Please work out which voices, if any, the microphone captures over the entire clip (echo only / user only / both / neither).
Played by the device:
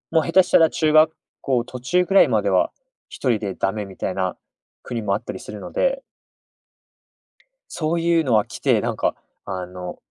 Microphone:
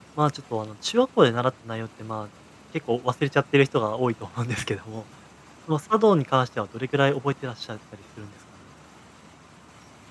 user only